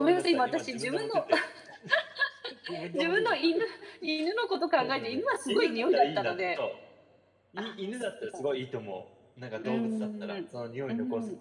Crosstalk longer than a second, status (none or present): present